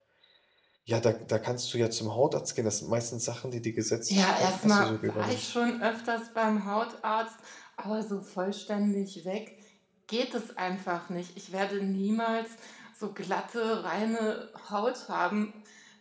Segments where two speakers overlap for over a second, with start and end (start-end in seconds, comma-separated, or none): 4.1-5.5